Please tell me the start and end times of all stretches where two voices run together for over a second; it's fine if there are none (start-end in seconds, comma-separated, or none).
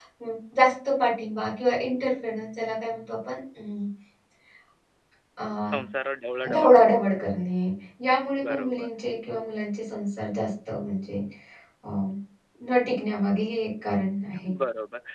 none